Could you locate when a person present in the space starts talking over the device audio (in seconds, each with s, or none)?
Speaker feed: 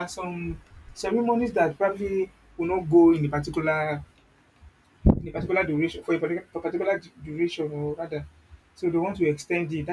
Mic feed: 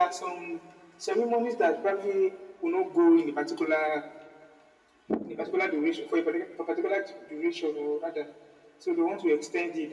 none